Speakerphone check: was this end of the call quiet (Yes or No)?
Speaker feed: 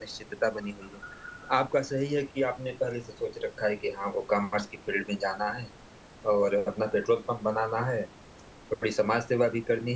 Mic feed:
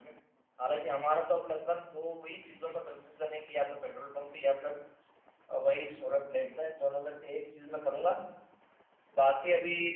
No